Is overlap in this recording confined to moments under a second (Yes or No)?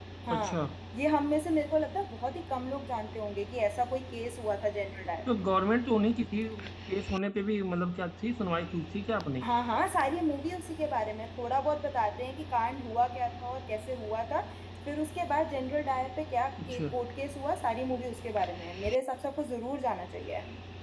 Yes